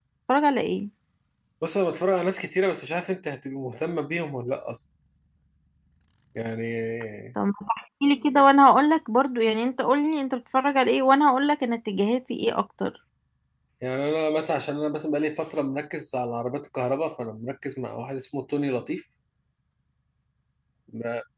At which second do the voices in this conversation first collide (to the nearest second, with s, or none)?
none